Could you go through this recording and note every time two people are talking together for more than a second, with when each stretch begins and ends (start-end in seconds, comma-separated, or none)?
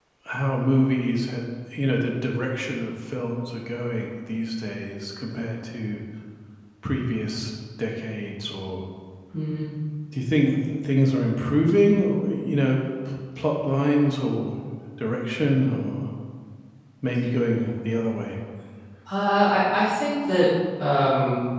none